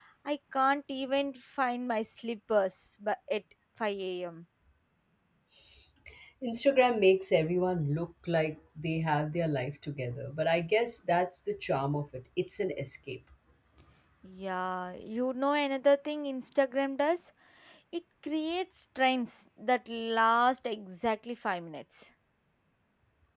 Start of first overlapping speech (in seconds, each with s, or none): none